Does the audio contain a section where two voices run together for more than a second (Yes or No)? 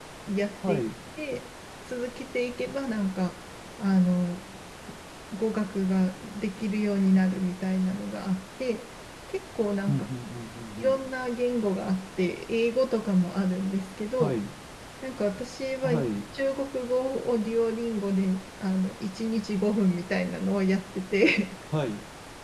No